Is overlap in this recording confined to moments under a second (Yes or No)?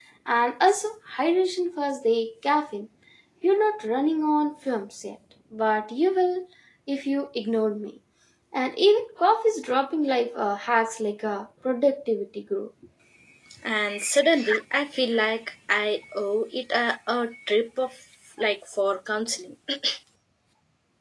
Yes